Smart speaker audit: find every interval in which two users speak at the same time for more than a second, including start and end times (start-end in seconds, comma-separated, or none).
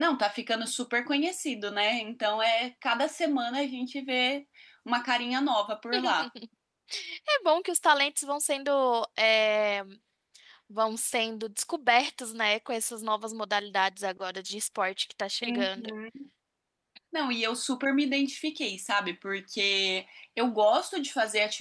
none